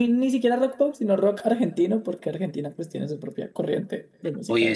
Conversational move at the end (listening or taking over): taking over